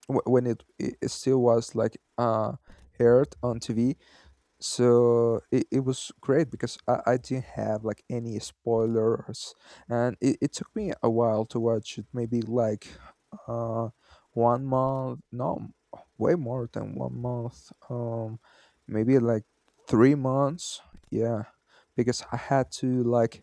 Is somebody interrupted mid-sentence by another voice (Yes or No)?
No